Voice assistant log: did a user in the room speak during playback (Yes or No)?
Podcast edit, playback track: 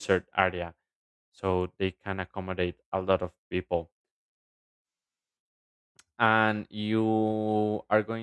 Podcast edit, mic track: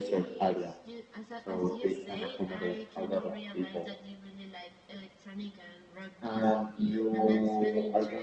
Yes